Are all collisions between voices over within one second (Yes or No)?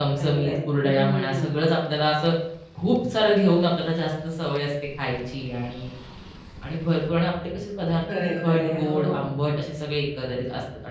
No